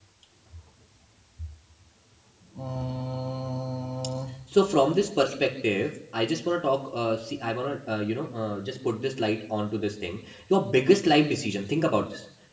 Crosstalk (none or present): none